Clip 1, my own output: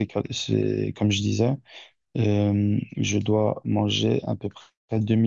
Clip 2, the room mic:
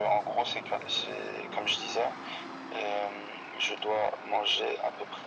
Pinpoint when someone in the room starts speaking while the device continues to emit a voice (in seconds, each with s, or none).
none